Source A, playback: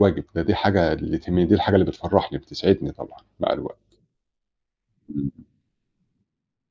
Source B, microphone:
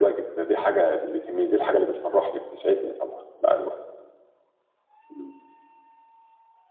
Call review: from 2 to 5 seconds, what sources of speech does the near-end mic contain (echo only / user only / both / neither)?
echo only